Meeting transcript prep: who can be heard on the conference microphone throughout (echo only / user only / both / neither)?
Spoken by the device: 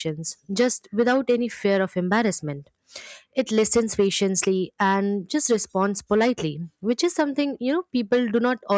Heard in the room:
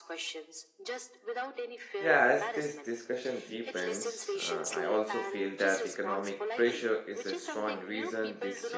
both